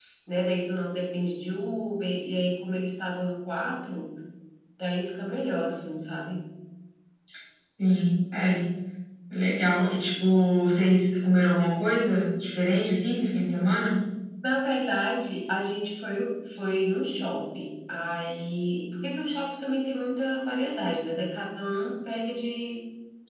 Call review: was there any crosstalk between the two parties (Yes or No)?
No